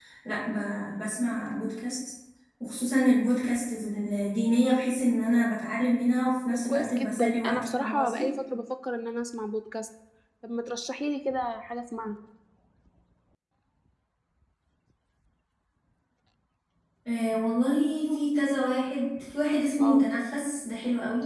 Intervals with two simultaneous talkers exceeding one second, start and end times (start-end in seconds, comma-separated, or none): 6.5-8.2